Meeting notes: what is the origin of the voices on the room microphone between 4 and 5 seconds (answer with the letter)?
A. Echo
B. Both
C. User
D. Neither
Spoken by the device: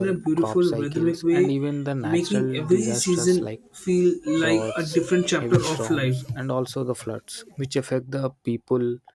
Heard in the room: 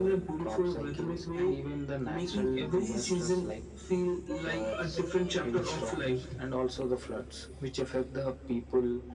A